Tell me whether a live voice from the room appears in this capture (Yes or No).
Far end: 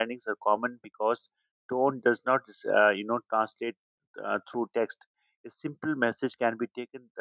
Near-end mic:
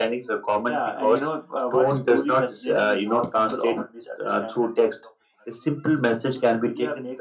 Yes